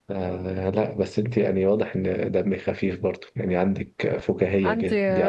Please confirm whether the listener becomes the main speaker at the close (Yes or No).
No